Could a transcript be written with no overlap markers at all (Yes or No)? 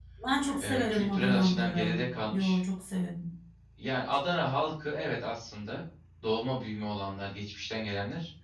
No